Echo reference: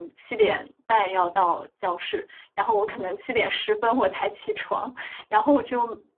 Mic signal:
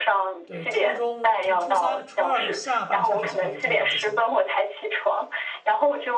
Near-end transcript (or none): 对，初中从初三、初二下半下学期开始就有晚自习了，